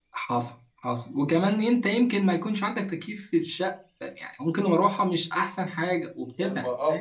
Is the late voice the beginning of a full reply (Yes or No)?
Yes